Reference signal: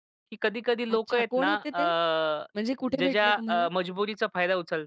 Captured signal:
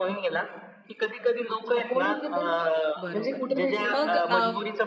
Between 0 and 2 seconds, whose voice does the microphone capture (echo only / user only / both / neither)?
echo only